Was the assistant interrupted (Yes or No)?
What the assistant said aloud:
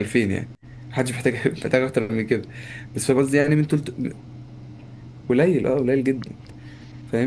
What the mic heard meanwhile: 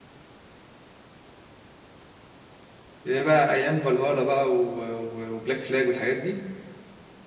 Yes